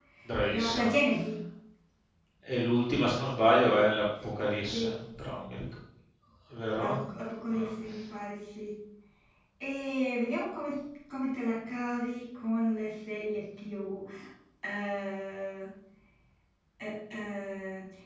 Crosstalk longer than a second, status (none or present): none